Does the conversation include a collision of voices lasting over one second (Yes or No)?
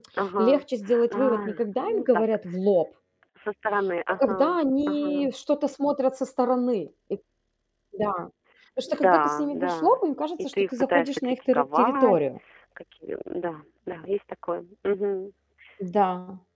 Yes